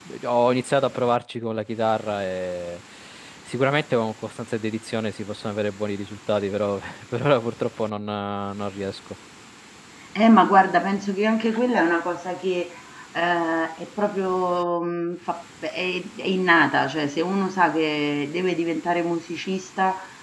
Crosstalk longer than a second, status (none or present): none